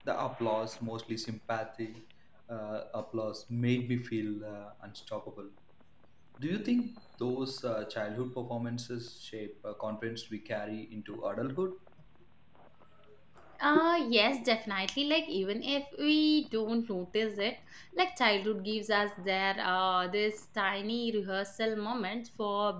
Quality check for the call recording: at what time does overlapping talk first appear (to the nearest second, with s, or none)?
none